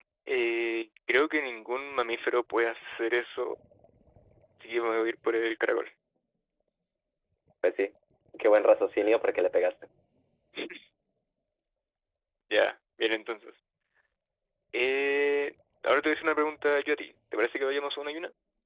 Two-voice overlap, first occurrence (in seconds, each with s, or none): none